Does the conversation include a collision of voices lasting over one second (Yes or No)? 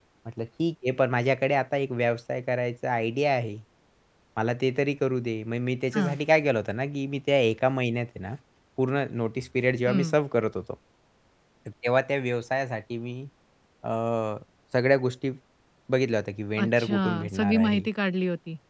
Yes